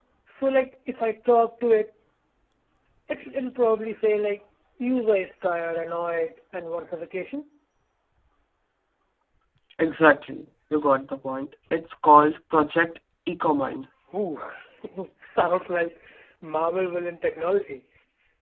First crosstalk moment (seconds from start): none

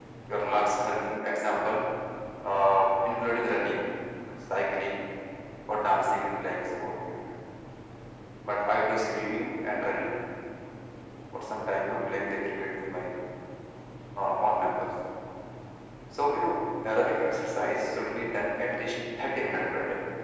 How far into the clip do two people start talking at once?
none

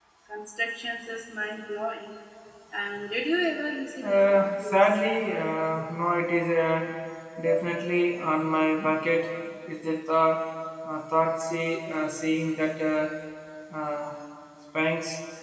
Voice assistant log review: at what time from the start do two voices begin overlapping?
4 s

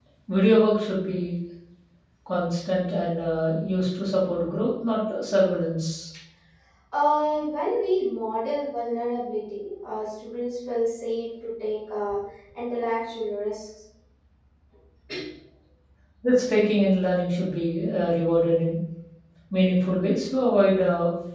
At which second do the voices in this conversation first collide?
none

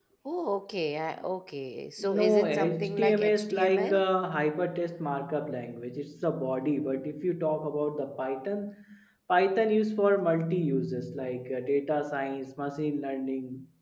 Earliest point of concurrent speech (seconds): 2 s

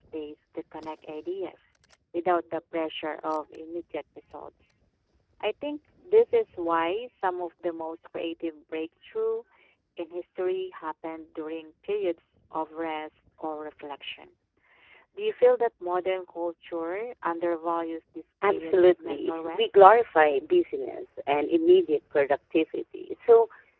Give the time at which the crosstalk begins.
18 s

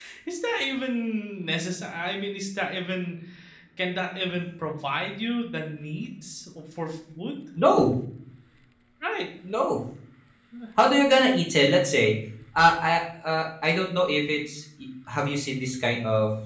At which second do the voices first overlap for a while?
none

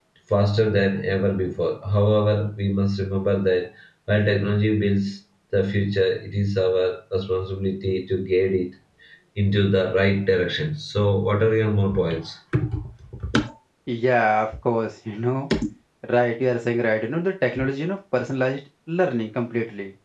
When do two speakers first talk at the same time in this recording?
none

